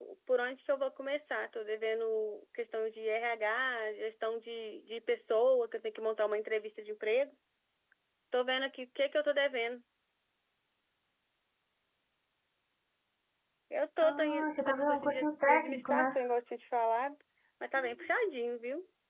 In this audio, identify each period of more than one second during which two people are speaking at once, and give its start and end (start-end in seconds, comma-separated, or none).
14.0-16.2